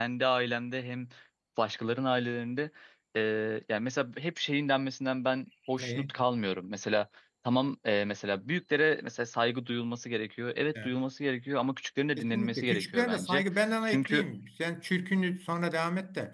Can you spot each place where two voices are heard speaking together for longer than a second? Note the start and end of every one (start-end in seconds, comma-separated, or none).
12.2-13.4